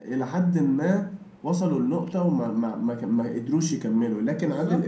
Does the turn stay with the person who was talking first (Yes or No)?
Yes